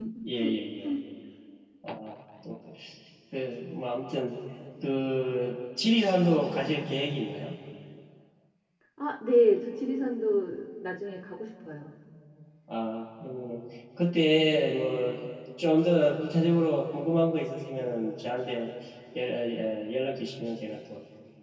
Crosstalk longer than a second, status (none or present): none